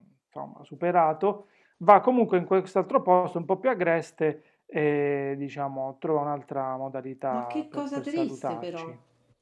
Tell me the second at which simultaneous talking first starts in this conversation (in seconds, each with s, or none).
7.3 s